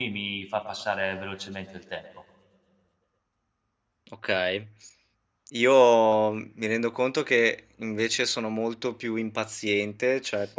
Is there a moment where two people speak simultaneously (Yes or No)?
No